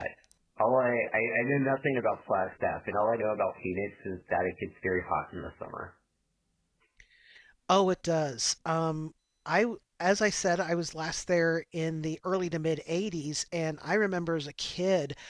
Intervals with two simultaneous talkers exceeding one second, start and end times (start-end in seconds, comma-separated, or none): none